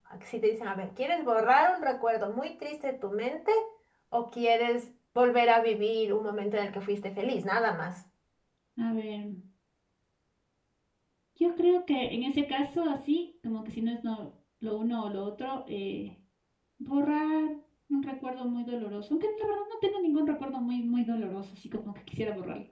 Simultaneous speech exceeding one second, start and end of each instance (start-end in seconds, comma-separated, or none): none